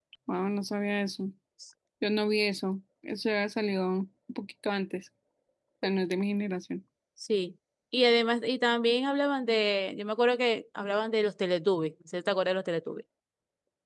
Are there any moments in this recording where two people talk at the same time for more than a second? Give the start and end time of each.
none

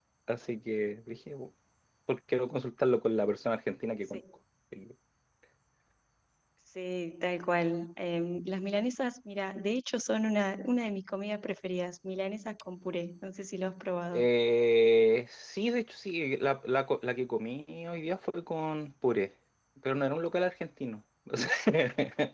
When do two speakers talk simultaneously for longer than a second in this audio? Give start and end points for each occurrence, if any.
none

